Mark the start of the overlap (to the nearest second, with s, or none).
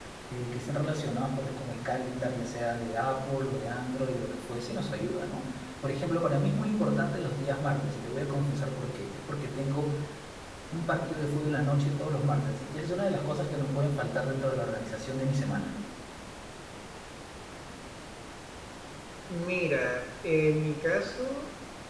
none